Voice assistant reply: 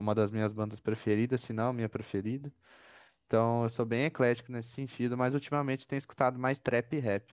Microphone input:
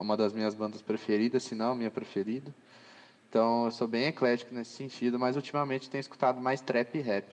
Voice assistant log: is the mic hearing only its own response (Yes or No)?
Yes